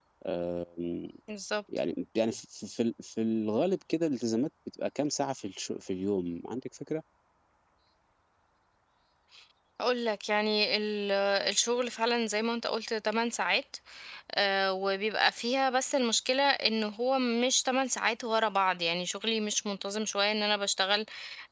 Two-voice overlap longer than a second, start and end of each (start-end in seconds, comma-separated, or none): none